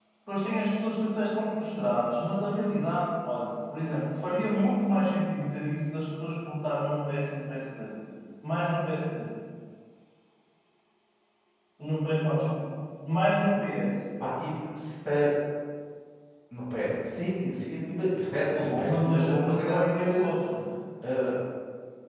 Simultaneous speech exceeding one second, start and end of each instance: 18.5-20.0

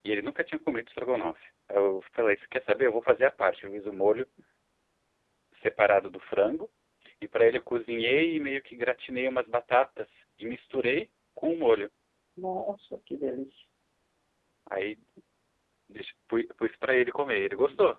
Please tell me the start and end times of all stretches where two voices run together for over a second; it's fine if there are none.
none

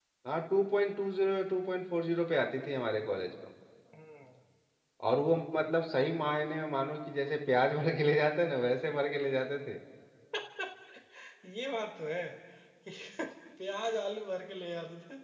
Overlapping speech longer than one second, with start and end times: none

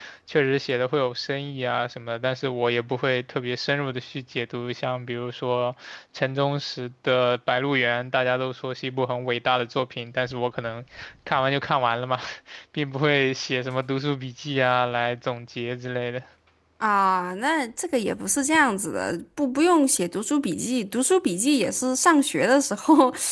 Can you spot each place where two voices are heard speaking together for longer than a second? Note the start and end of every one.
none

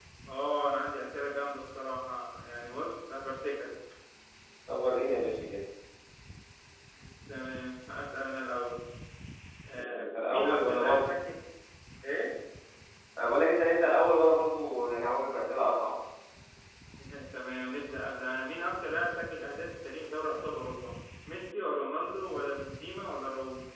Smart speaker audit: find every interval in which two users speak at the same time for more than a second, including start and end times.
9.8-11.1

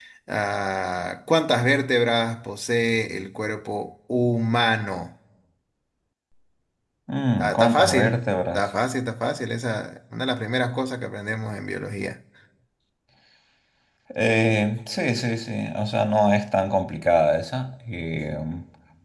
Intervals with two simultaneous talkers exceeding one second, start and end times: 7.4-8.6

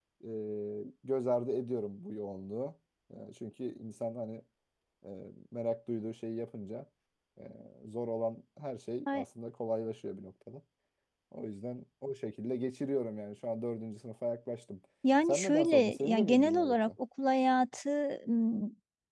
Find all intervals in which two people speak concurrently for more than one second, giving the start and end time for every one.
15.3-16.9

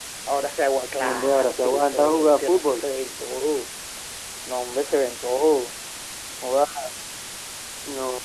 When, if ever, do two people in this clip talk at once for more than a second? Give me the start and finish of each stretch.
1.0-2.9

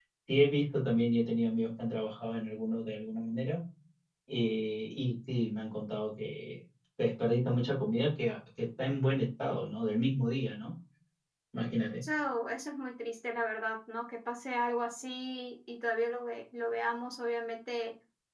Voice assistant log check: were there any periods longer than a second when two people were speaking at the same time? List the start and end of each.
none

